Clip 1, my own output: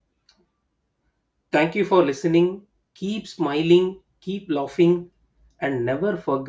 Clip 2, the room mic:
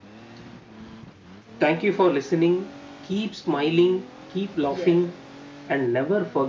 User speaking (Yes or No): Yes